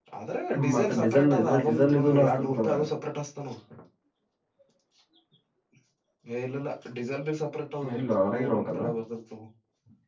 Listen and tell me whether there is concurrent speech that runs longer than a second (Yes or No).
Yes